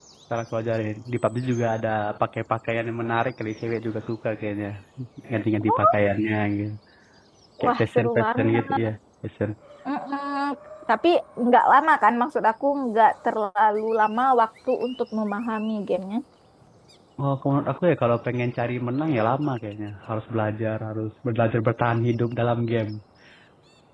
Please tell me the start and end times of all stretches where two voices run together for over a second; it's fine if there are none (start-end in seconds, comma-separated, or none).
7.6-8.8